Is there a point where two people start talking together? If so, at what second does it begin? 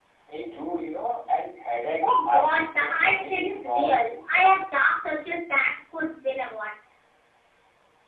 2.0 s

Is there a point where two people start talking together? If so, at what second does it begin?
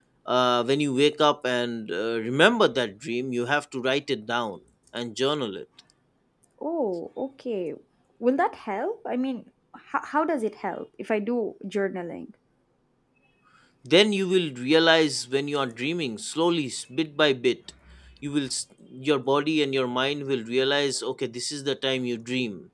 none

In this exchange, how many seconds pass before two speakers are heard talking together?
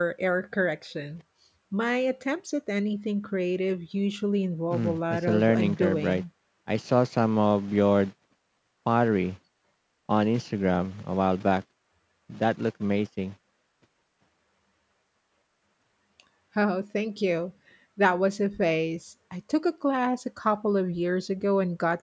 4.7 s

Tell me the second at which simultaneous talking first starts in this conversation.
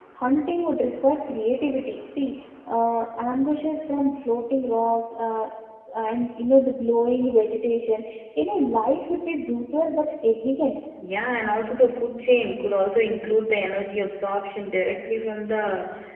none

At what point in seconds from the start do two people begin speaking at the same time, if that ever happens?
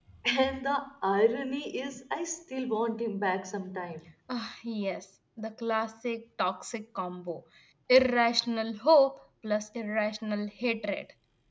none

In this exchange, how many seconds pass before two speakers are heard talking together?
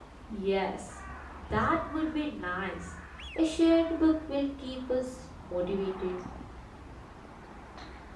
none

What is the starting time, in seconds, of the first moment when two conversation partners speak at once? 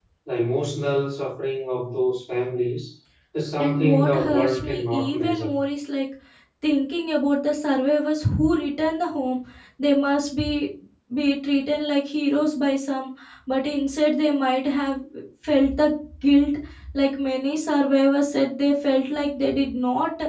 3.6 s

